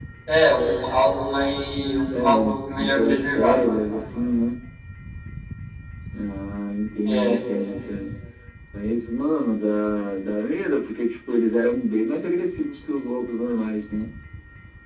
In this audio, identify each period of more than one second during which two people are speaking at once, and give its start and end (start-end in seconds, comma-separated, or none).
2.1-3.7